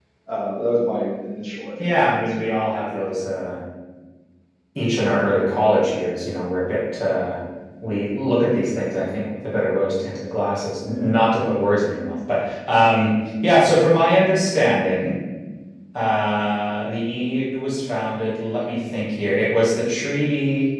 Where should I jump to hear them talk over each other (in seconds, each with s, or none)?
1.8 s